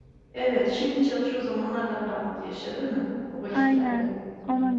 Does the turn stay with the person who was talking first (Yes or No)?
No